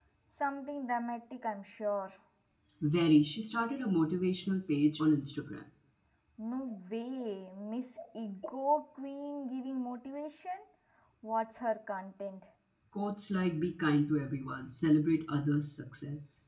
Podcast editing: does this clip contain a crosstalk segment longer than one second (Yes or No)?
No